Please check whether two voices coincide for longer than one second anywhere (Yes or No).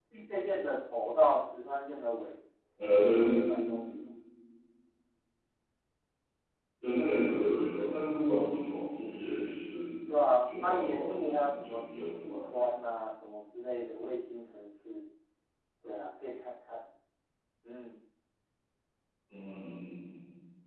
Yes